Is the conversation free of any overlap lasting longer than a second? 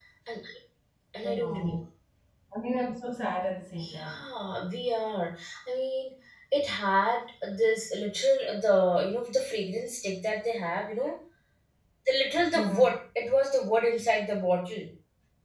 Yes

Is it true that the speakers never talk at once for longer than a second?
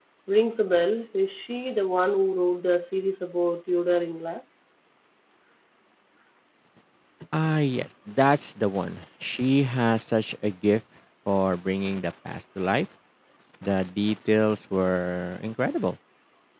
Yes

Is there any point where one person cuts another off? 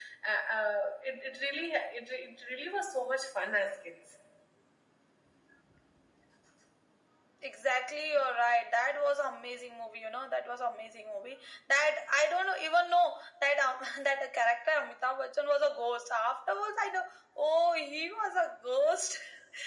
No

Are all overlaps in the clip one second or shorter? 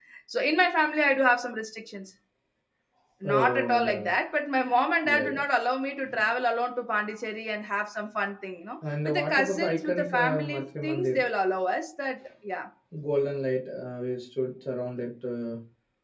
No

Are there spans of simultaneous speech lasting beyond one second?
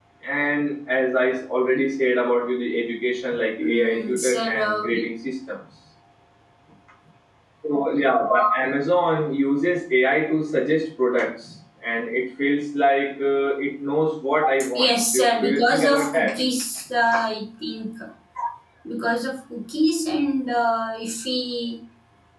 Yes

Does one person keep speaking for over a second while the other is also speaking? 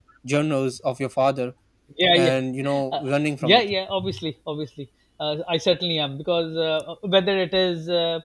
No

